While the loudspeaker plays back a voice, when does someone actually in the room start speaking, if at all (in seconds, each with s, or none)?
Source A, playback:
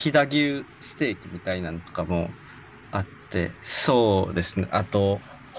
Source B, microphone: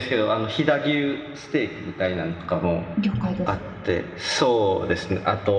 3.0 s